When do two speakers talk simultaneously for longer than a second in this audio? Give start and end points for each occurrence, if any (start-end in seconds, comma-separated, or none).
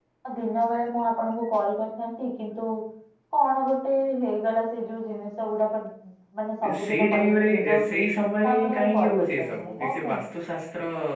6.6-8.0, 8.5-10.1